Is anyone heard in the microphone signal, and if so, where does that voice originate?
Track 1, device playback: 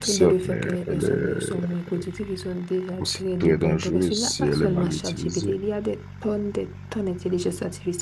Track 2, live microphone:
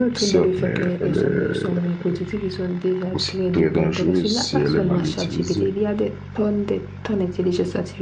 echo only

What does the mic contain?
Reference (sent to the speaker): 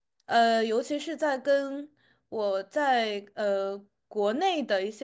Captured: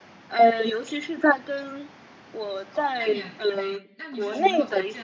both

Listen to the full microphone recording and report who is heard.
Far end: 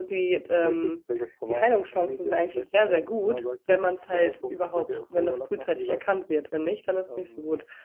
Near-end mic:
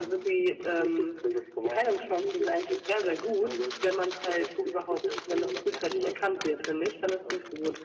echo only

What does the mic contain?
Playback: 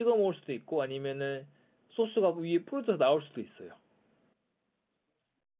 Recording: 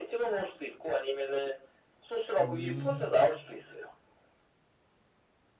both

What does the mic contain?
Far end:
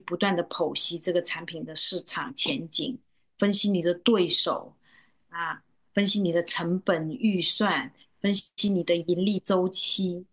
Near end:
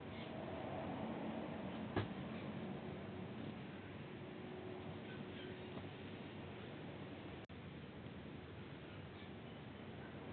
neither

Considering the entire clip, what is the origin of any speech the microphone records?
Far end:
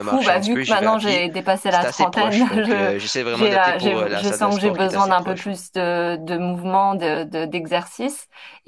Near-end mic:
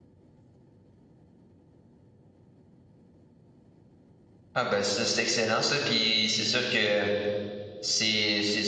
user only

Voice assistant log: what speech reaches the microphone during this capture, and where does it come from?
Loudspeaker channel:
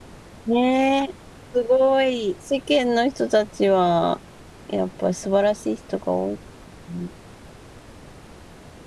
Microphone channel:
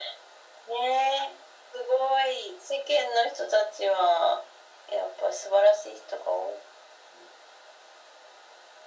echo only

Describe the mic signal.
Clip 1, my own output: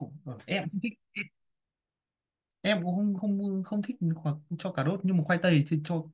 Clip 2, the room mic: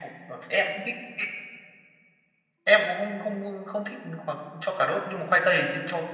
echo only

